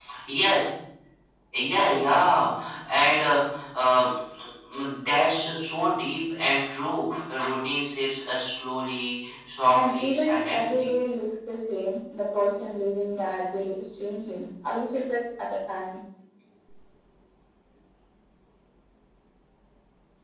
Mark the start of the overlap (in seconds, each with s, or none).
9.7 s